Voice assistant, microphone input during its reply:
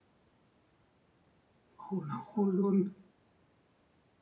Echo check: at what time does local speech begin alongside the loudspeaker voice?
1.8 s

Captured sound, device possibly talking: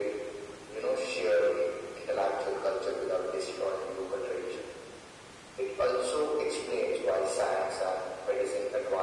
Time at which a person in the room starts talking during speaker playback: none

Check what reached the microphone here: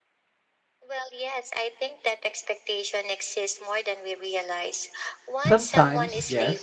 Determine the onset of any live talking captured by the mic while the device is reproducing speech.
5.3 s

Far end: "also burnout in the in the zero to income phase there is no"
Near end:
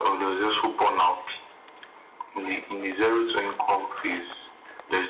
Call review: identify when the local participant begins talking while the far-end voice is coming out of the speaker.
none

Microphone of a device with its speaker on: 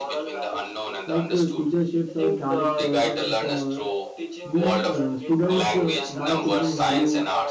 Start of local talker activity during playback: 1.0 s

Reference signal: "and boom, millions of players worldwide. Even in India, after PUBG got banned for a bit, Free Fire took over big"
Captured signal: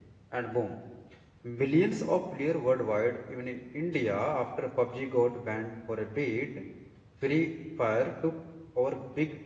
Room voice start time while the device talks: none

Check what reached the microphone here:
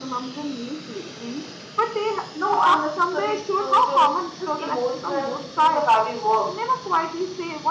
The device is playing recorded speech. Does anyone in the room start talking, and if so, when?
2.3 s

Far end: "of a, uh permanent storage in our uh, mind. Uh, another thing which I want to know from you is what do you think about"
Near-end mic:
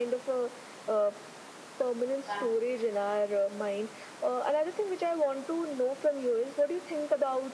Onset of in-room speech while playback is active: 2.2 s

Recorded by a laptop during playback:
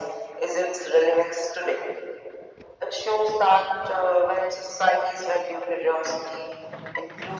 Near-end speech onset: none

